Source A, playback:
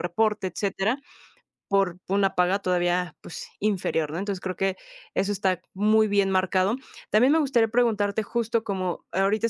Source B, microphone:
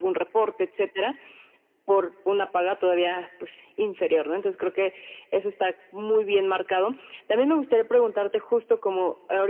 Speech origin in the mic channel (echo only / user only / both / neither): echo only